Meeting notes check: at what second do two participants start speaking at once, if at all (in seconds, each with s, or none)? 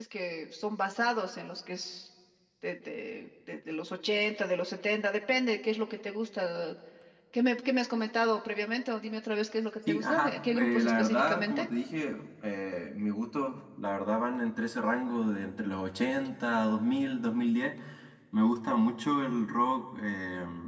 9.9 s